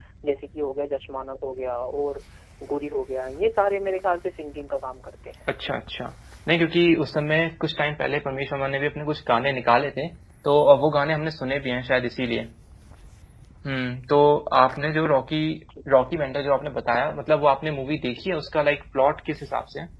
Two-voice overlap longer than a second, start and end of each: none

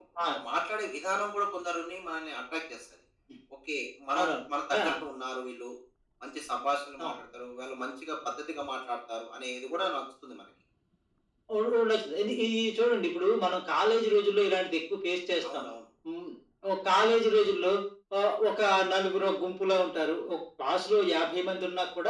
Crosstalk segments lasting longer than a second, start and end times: none

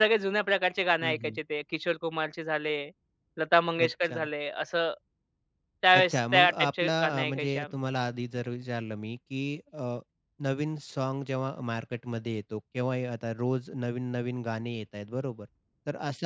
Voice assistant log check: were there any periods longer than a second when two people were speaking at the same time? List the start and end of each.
5.9-7.7

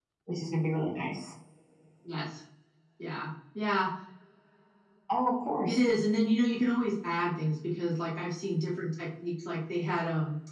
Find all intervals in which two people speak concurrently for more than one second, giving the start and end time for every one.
none

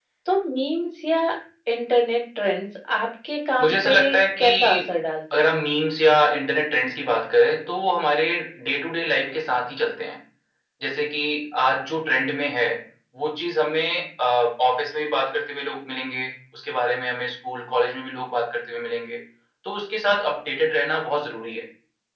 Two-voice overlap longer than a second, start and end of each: none

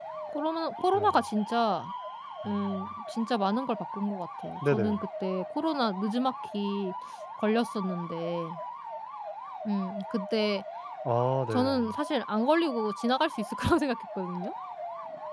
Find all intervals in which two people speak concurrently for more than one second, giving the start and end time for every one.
none

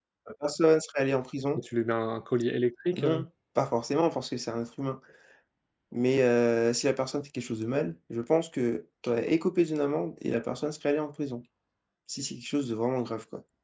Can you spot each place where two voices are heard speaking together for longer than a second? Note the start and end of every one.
none

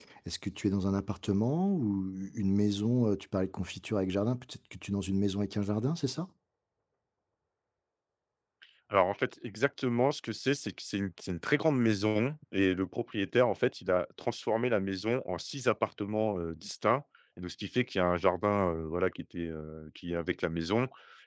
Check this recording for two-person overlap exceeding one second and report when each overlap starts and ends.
none

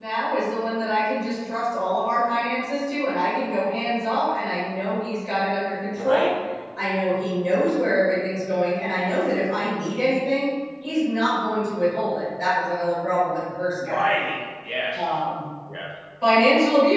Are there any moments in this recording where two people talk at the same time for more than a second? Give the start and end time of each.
none

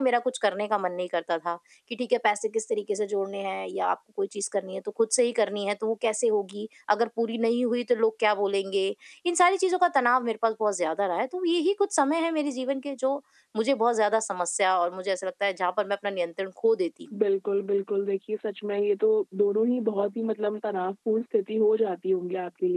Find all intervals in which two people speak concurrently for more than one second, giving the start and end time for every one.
none

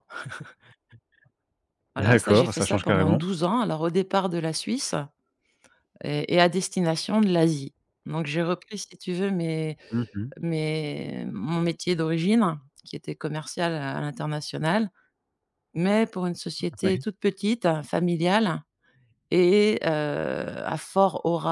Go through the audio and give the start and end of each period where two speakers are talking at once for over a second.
2.0-3.2

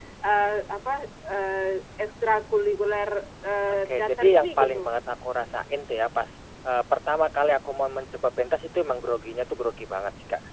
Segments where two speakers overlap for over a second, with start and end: 3.7-4.9

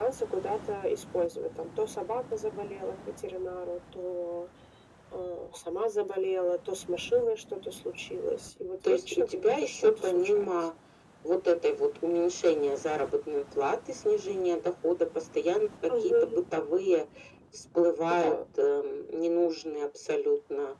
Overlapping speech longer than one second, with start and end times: 8.8-10.5

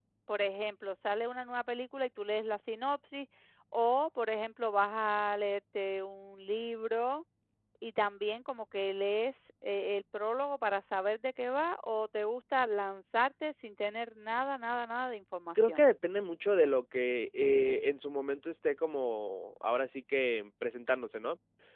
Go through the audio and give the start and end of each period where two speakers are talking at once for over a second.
none

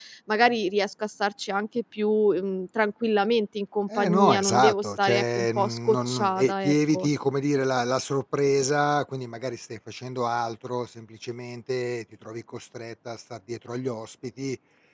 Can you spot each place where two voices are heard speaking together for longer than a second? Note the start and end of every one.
4.0-7.1

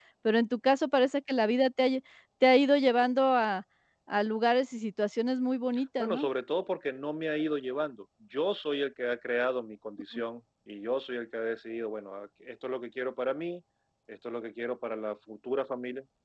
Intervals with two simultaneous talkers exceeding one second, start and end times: none

